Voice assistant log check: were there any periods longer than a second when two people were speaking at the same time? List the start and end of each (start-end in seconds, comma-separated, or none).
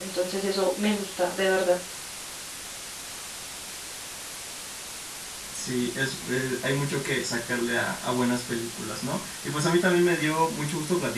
none